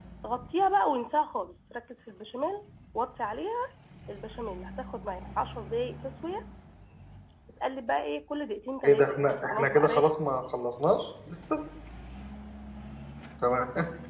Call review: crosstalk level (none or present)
present